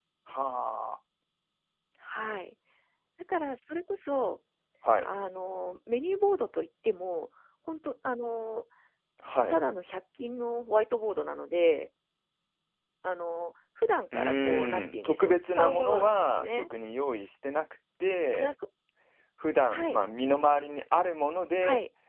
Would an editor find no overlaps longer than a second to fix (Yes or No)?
No